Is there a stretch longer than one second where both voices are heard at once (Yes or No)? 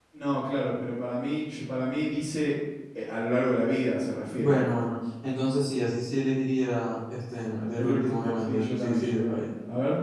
Yes